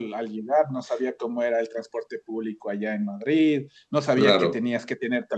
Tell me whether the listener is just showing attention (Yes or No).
Yes